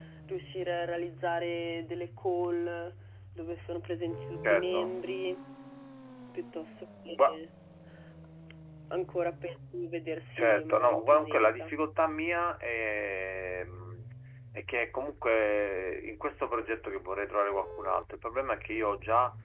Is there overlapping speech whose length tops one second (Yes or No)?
Yes